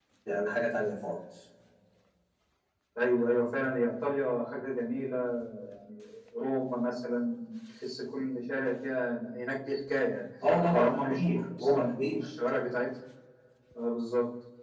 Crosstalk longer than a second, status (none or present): present